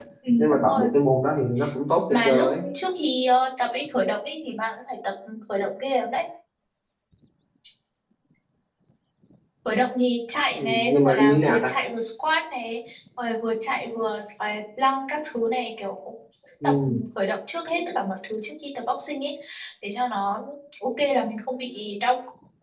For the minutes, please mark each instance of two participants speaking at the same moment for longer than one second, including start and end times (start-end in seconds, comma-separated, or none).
10.5-11.8